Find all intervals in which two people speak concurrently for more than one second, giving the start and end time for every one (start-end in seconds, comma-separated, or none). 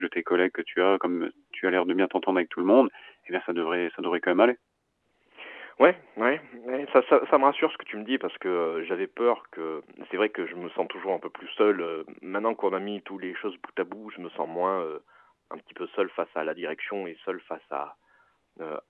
none